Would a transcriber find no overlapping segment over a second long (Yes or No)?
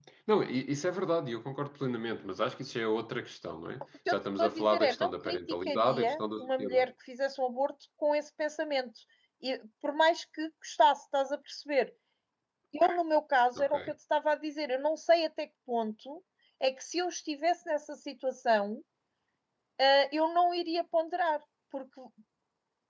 No